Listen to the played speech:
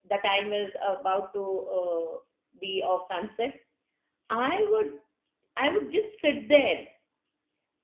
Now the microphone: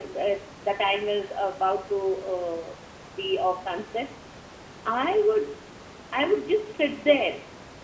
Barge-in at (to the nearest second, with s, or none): none